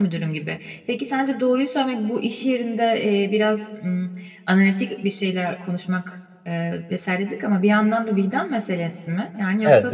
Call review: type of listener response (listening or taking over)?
taking over